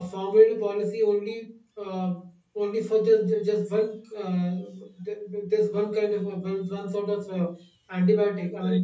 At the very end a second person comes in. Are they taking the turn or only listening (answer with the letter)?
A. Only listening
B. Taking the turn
B